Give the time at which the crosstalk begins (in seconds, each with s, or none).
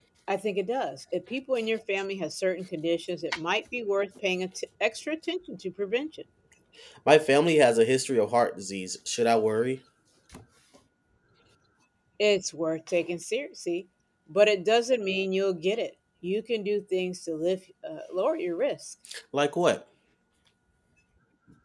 none